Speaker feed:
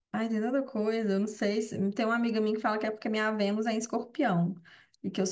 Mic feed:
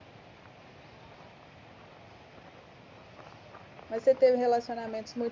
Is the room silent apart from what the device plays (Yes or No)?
No